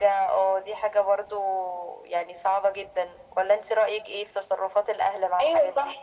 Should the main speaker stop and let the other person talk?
Yes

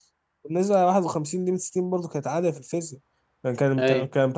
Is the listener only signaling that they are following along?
Yes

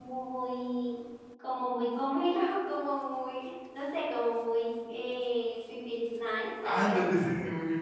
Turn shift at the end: Yes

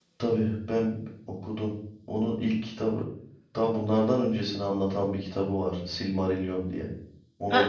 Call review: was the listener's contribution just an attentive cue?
No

